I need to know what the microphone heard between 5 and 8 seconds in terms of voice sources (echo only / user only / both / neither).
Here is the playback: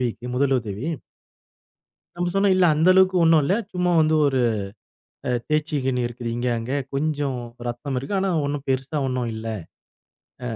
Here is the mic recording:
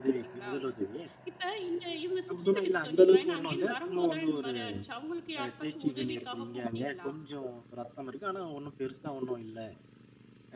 both